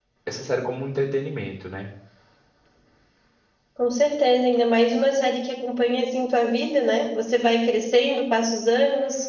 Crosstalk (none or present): none